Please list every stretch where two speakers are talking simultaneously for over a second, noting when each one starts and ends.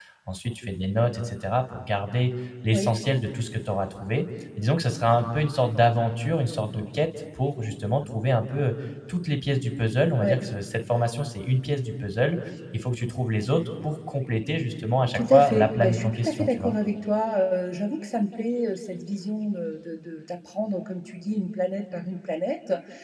15.1-16.7

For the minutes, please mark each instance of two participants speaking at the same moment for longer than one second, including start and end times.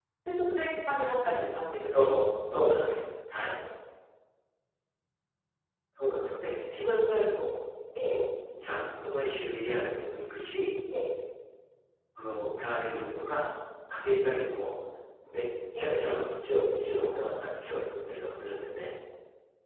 none

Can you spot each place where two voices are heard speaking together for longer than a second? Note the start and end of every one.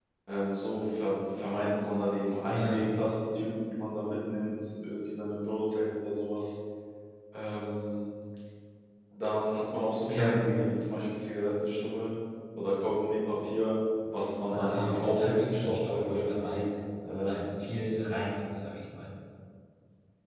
14.5-16.6

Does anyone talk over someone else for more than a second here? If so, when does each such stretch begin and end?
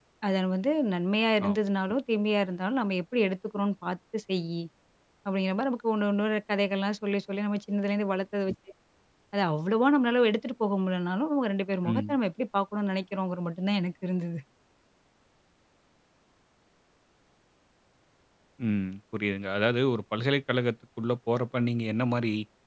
none

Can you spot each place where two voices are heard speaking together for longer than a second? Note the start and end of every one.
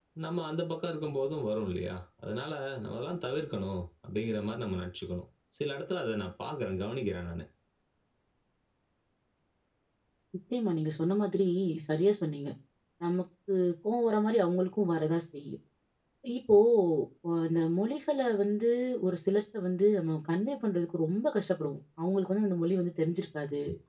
none

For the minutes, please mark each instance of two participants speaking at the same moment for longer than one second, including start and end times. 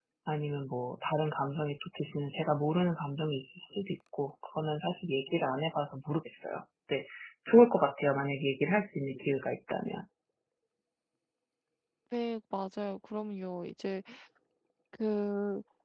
none

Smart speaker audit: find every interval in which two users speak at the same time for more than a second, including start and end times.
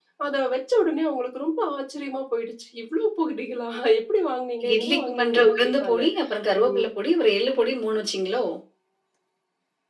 4.7-6.0

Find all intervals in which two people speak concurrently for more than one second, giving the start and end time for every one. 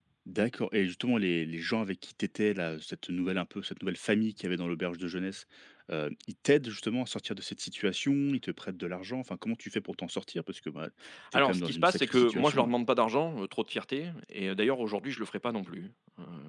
11.3-12.7

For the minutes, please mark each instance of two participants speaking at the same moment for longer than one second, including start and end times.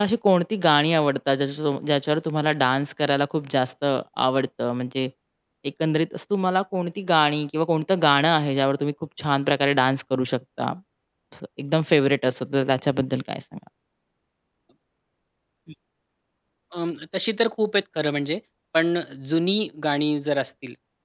none

